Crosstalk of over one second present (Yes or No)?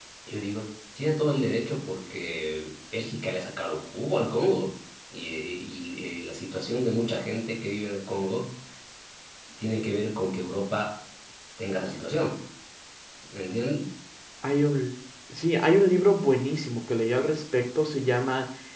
No